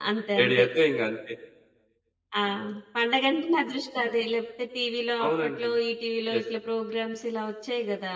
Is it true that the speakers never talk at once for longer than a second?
Yes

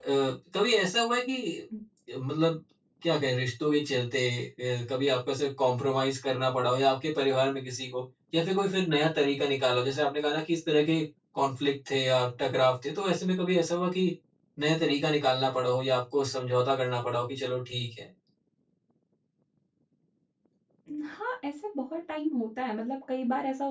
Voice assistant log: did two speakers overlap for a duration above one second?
No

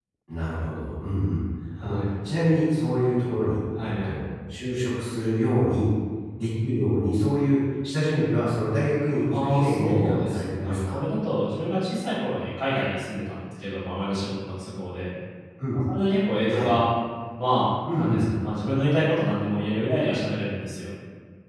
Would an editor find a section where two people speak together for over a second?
Yes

